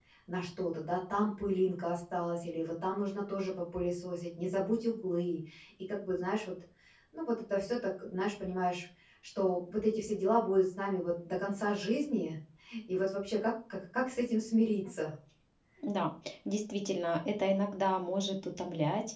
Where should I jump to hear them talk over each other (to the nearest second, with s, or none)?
none